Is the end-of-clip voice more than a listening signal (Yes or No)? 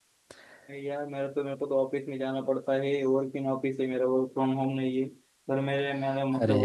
No